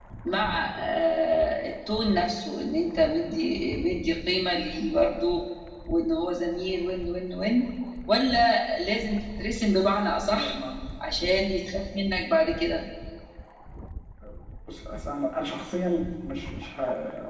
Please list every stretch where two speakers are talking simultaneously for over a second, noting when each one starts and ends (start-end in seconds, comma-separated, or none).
none